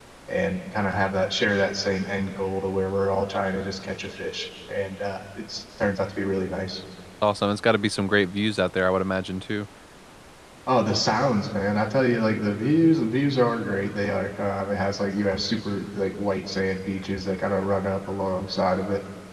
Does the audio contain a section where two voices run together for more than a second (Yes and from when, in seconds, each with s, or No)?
No